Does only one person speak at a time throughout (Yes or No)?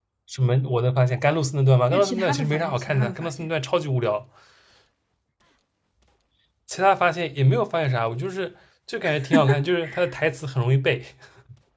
No